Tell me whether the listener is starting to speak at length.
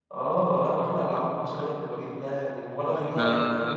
No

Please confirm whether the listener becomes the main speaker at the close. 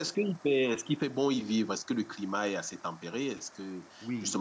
Yes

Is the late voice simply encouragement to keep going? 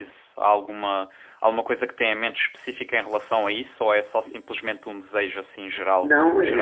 No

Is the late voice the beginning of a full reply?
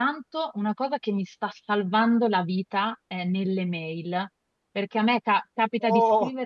No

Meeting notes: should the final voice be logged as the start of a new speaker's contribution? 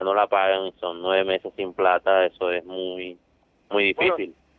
Yes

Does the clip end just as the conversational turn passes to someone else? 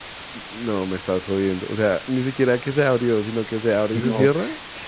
Yes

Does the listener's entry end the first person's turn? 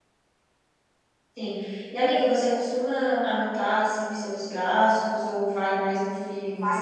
Yes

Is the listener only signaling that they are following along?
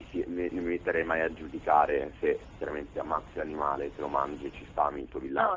Yes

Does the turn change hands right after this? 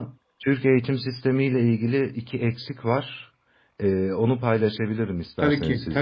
Yes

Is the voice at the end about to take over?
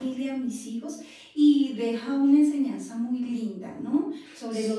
No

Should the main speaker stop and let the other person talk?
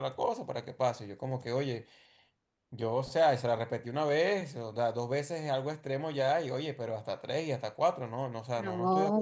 Yes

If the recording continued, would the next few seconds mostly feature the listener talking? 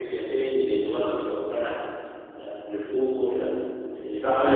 Yes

